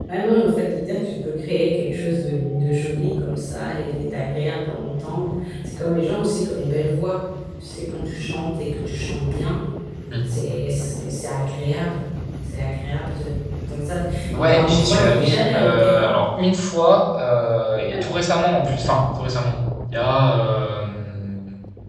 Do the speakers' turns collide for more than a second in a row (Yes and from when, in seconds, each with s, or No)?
Yes, from 14.4 s